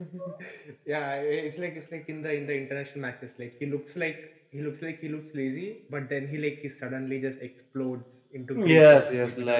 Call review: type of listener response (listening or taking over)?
taking over